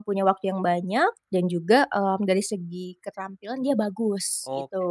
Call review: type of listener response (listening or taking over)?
taking over